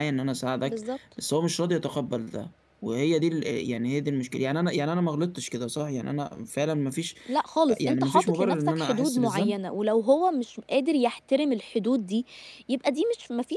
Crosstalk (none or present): present